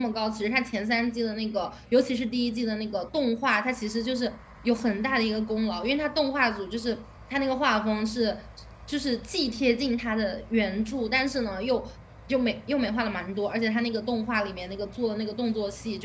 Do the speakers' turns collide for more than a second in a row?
No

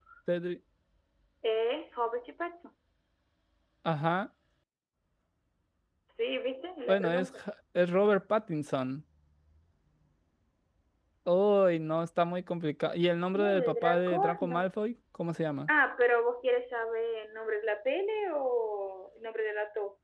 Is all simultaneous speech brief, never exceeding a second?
No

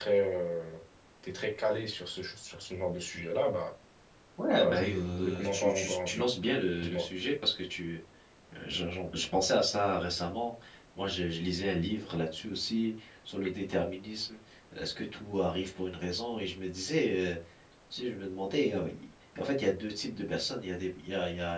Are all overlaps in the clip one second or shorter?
No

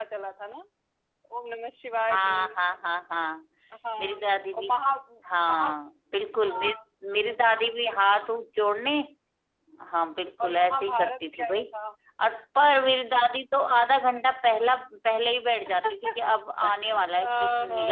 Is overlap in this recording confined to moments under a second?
No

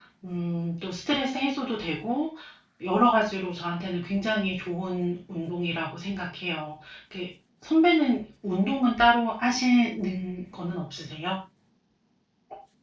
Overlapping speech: No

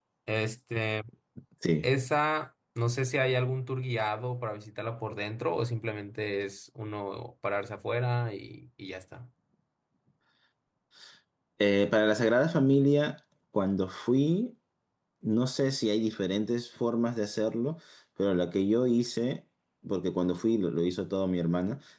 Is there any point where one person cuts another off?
No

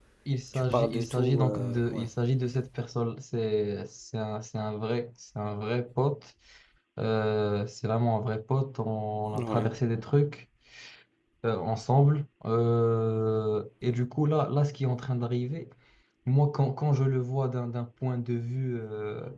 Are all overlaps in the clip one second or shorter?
No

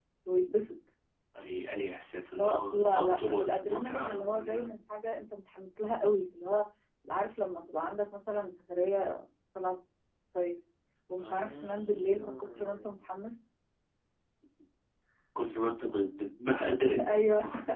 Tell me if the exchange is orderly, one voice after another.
No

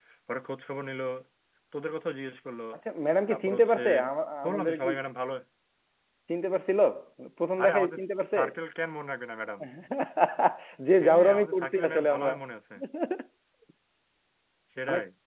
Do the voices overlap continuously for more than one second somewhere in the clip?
Yes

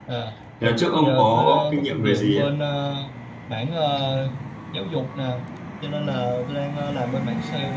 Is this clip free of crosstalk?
No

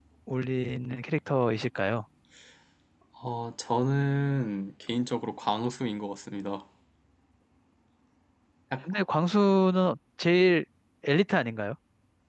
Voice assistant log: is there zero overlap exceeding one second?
Yes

